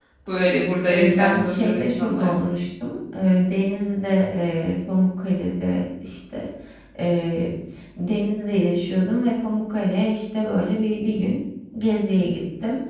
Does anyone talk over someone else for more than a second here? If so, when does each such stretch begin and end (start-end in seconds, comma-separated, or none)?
0.9-2.3